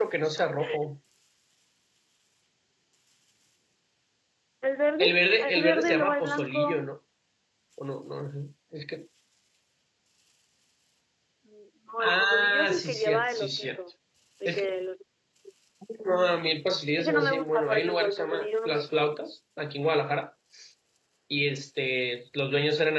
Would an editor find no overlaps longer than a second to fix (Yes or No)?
No